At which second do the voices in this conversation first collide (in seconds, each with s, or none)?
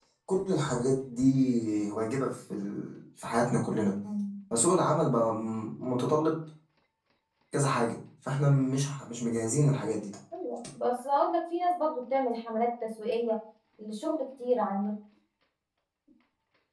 none